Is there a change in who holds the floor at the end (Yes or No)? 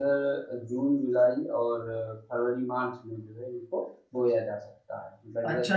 Yes